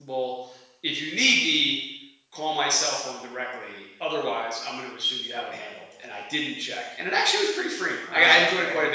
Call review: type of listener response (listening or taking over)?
listening